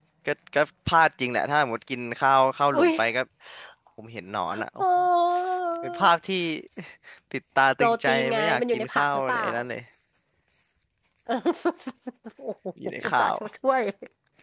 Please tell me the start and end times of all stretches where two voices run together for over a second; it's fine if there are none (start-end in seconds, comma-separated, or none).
7.8-9.5